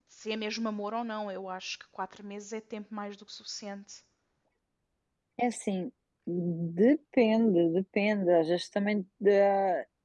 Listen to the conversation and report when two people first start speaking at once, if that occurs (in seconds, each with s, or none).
none